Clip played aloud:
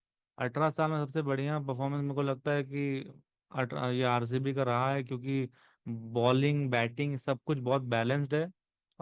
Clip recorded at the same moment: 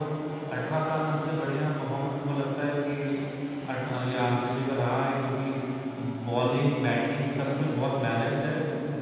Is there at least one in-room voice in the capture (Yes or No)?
No